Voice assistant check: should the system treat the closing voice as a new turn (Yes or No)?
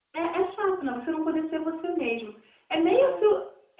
No